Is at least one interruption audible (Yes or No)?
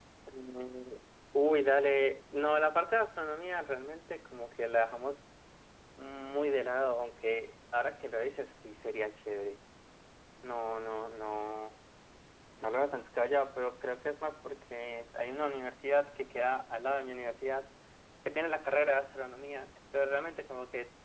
No